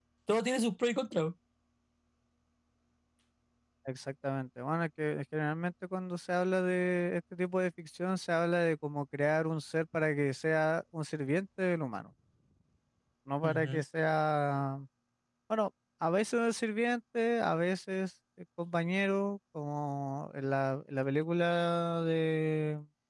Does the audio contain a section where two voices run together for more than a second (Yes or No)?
No